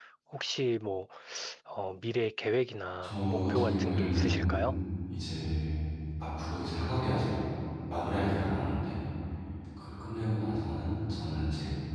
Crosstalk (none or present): present